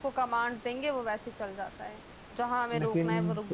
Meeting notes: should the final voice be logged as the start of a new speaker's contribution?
No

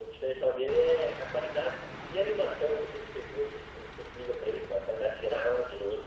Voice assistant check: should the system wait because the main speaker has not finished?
No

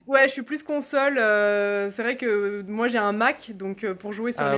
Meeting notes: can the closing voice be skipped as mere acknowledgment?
Yes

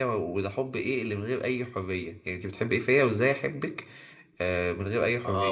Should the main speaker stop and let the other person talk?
Yes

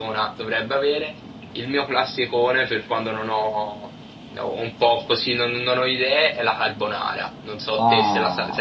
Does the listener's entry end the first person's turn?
Yes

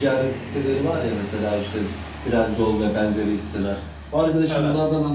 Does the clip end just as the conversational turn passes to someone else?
No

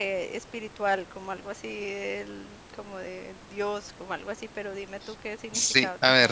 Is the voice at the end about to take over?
Yes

